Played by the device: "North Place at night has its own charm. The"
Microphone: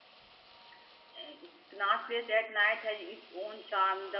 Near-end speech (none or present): none